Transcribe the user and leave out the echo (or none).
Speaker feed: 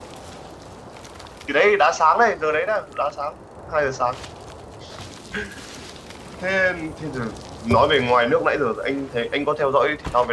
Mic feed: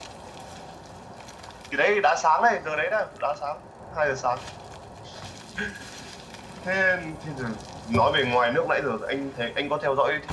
none